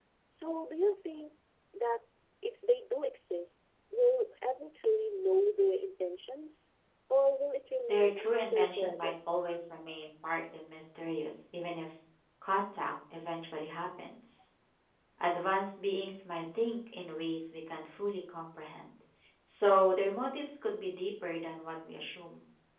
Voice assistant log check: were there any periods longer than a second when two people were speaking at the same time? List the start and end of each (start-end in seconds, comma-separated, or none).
7.9-9.1